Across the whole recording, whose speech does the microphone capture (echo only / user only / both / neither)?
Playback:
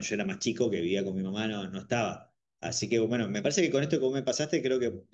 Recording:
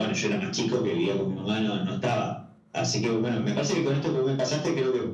echo only